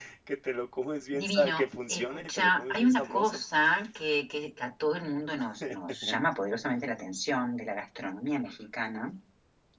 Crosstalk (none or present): present